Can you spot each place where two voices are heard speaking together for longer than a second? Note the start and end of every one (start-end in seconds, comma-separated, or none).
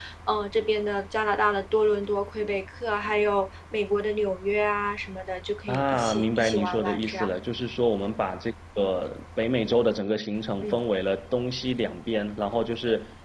5.7-7.3